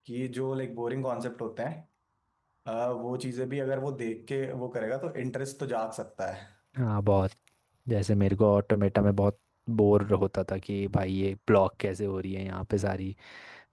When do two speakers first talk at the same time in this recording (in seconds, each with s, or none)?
none